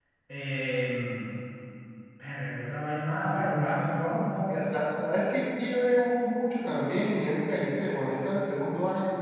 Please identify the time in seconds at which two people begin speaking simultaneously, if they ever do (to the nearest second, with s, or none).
none